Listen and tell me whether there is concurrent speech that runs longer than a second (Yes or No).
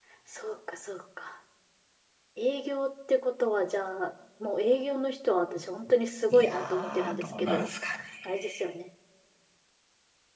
Yes